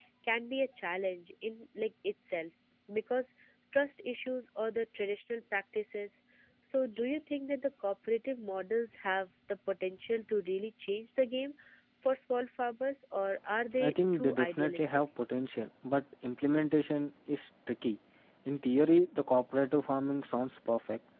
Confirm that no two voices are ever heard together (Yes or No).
No